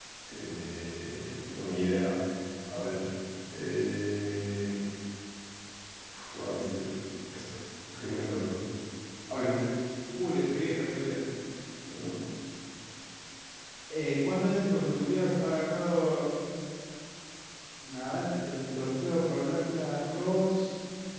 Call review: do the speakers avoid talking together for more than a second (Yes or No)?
Yes